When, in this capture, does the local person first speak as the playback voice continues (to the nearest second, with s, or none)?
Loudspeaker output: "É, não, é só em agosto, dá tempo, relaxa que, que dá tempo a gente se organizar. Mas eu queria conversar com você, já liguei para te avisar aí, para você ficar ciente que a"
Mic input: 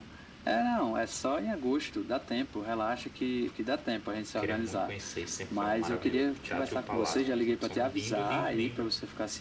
4 s